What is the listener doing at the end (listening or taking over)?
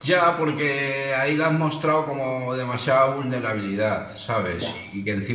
listening